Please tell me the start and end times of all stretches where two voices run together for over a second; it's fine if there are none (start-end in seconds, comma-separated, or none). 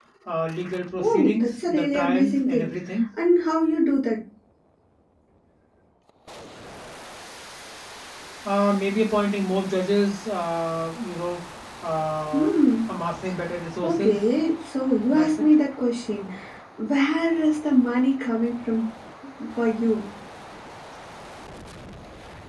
1.0-2.7